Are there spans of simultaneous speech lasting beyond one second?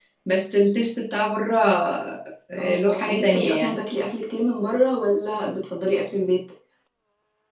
Yes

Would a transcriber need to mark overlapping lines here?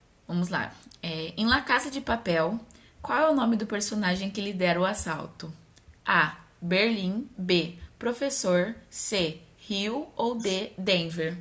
No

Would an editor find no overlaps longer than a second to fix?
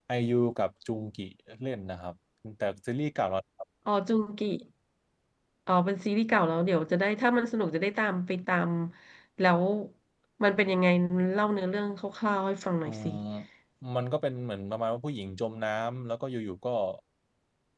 Yes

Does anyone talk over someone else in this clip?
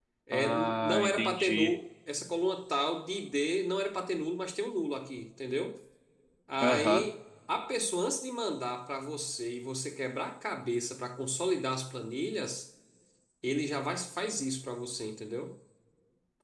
Yes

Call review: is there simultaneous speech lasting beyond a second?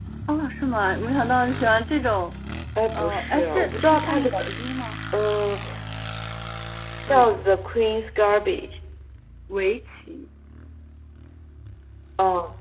Yes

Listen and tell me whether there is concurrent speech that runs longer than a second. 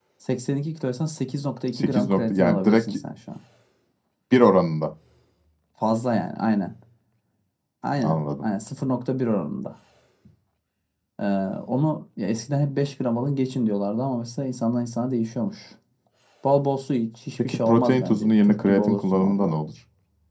Yes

